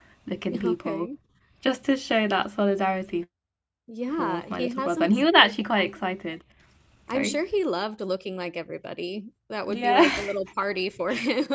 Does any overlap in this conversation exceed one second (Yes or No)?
Yes